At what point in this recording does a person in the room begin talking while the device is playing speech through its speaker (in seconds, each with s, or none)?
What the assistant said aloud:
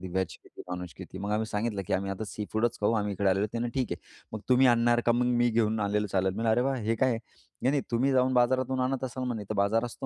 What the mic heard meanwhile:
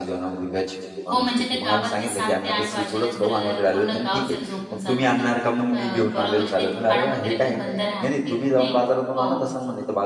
1.1 s